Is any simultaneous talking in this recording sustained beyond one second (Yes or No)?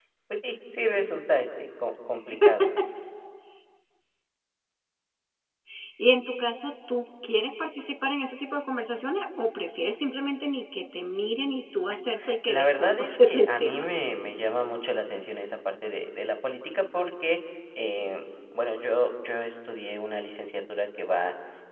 Yes